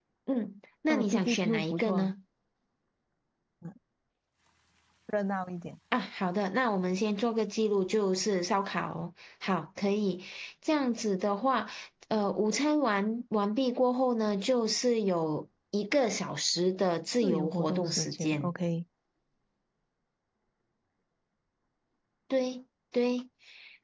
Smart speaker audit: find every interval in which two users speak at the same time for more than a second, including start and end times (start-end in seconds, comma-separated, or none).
0.9-2.1, 17.2-18.5